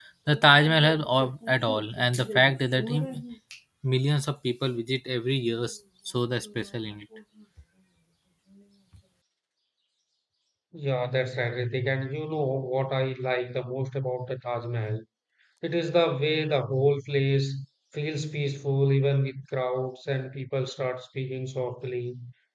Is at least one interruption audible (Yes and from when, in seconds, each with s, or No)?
No